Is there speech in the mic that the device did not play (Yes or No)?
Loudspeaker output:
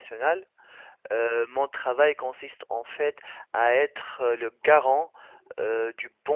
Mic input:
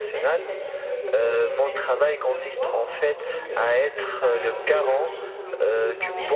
Yes